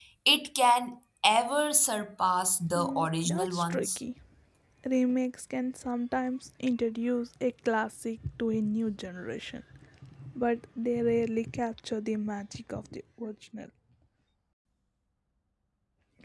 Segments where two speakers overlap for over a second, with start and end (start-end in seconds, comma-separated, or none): 2.8-4.0